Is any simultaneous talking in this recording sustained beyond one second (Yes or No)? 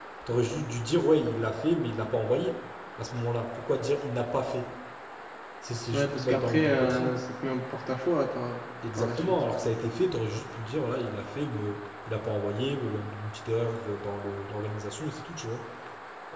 Yes